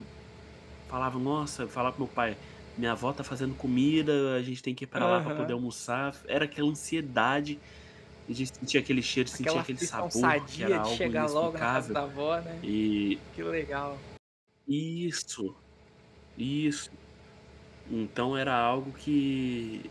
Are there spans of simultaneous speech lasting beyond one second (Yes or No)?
Yes